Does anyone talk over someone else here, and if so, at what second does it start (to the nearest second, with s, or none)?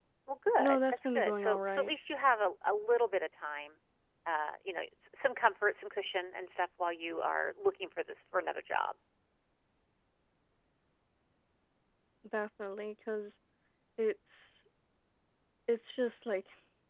1 s